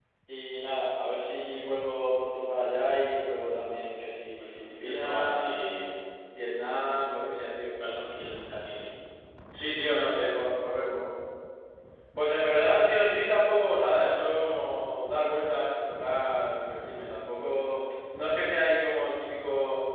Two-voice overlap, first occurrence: 4 s

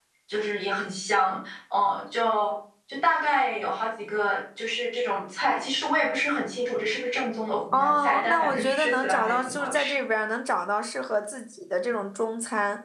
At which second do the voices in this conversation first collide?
8 s

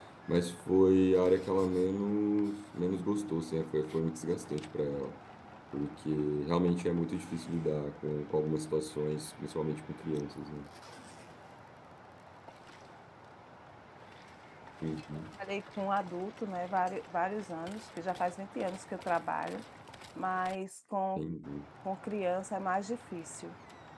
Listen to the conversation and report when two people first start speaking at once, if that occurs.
none

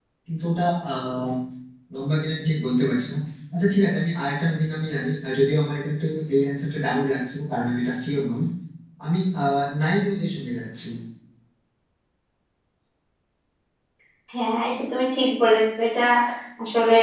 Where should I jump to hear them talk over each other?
none

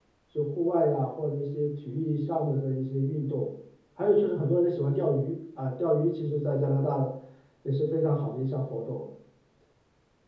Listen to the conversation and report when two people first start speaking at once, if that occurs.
none

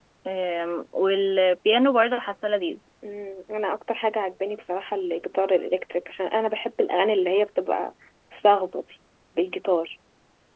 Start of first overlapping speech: none

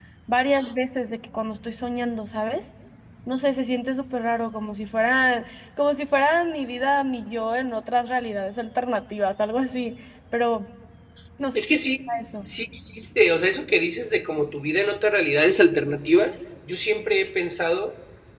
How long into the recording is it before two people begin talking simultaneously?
none

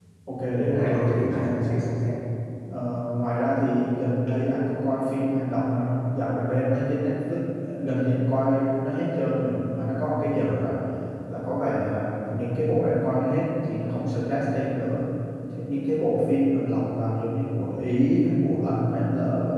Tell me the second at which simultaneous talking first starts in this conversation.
1 s

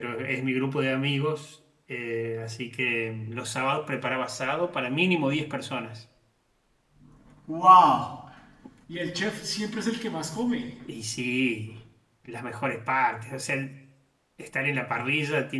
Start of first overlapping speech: none

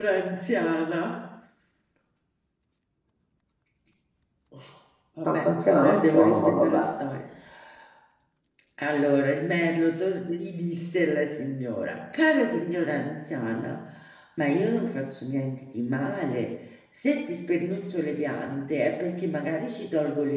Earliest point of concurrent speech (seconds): 5 s

